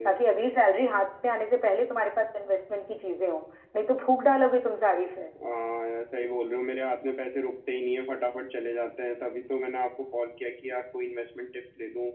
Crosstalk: none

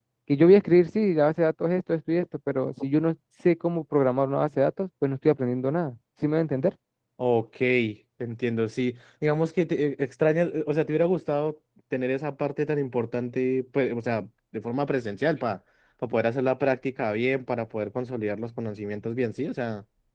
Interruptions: none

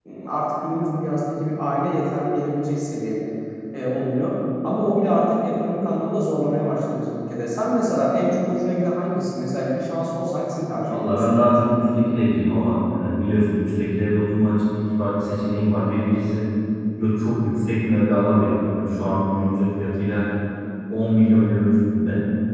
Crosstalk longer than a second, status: none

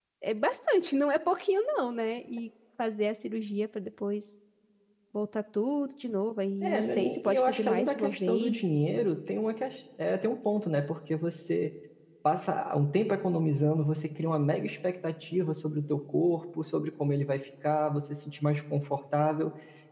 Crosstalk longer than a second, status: present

